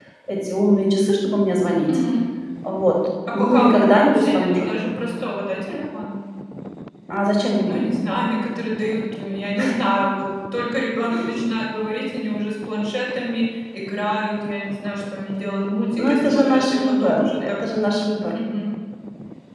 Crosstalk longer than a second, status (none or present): present